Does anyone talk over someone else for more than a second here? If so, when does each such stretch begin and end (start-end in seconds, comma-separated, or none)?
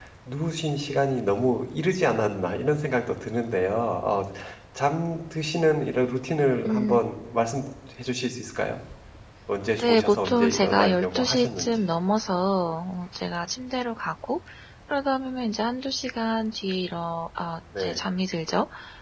9.8-11.9